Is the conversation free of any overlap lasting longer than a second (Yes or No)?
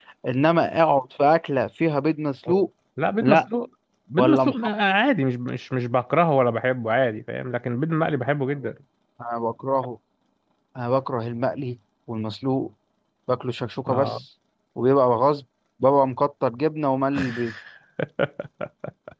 Yes